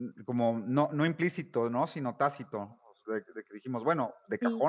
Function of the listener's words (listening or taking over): listening